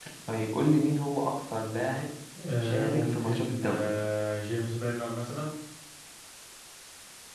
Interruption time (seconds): 2.6 s

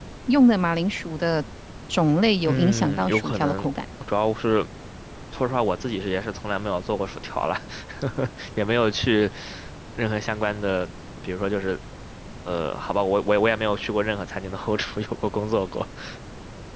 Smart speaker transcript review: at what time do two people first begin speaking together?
2.5 s

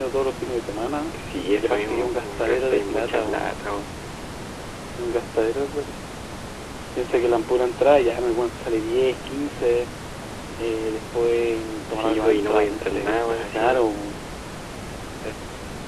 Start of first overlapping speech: 1.6 s

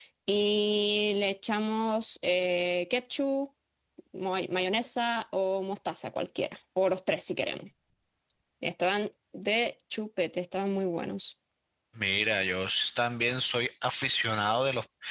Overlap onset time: none

